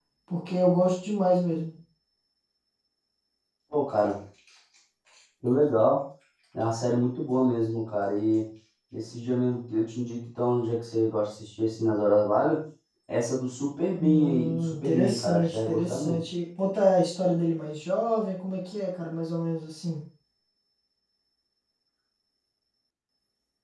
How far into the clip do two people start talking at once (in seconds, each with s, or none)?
14.0 s